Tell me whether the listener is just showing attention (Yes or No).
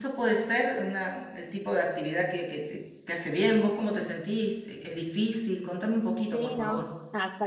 No